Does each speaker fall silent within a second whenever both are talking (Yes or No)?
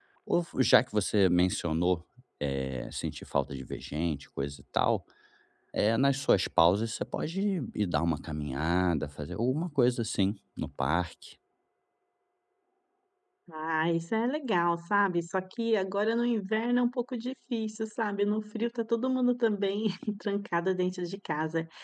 Yes